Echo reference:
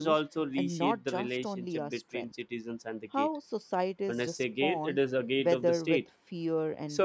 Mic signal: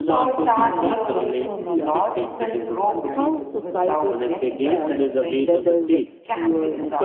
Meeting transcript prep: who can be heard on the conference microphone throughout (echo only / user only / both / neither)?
both